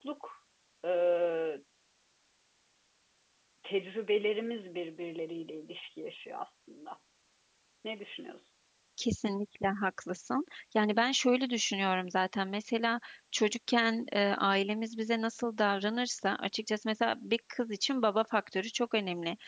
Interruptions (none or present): none